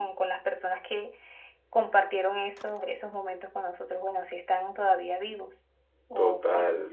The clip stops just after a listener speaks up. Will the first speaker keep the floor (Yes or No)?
No